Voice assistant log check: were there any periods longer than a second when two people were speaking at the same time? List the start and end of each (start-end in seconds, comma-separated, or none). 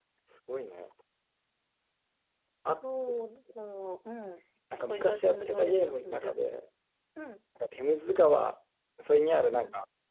4.8-6.3